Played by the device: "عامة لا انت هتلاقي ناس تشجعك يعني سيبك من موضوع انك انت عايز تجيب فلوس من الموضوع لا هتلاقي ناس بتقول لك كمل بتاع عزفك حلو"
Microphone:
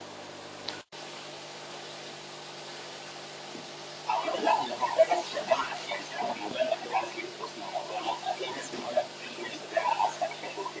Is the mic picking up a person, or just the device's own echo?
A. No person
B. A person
A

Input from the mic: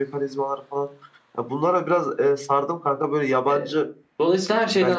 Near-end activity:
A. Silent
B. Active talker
B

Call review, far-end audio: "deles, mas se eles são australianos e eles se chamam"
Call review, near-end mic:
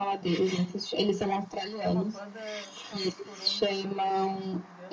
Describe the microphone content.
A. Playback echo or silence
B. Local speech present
B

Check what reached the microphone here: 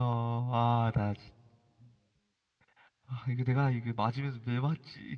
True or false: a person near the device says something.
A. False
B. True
B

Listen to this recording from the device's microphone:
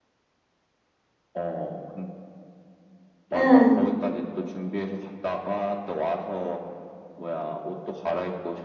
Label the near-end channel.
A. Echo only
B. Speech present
B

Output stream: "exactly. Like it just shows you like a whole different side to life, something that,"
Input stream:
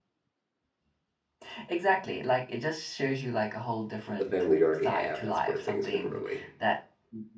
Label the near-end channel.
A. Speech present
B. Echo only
A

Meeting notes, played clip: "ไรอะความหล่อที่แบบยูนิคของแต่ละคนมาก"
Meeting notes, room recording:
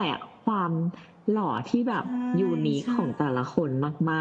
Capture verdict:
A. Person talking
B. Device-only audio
A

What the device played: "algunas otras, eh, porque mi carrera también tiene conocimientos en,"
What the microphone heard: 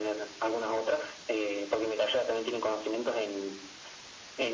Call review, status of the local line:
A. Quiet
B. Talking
A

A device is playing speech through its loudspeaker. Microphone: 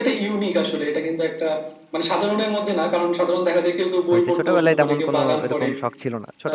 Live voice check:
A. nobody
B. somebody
B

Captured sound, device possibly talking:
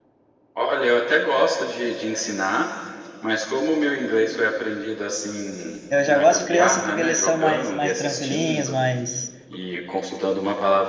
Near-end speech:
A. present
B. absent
A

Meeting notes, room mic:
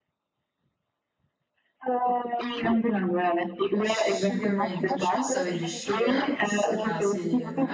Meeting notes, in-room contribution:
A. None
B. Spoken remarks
B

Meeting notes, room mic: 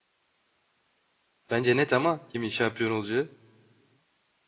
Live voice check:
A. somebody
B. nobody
A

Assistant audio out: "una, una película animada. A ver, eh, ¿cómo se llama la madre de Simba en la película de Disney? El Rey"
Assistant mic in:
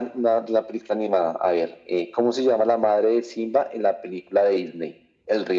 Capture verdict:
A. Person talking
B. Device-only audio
B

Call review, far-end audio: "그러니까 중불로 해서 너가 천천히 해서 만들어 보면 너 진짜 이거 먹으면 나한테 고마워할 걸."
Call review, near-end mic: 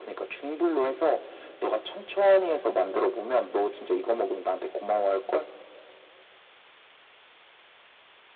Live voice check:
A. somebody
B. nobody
B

